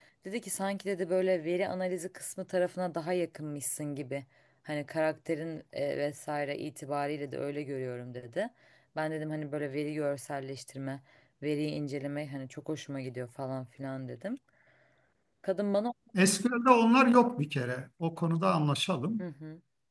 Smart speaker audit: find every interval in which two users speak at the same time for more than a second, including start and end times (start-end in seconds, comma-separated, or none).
none